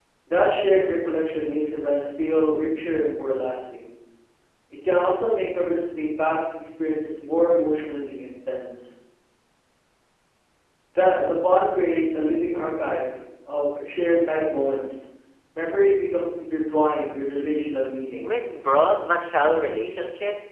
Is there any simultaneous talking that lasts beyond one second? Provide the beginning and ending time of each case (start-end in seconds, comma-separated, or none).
none